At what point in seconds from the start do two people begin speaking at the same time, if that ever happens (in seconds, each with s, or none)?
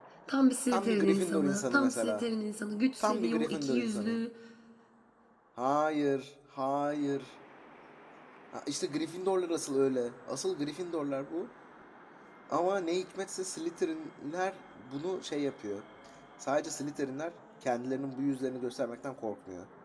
0.7 s